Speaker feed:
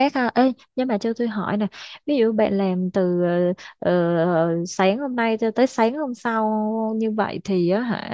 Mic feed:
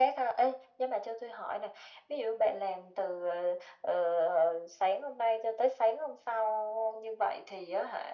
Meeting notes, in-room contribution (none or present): none